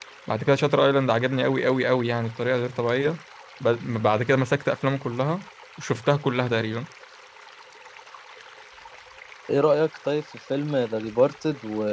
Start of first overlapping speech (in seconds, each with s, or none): none